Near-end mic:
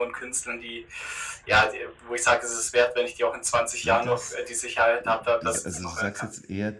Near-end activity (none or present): present